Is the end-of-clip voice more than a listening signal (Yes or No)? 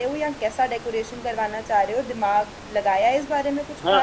Yes